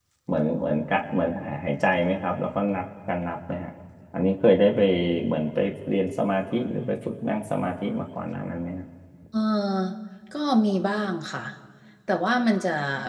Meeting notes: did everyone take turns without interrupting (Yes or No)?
Yes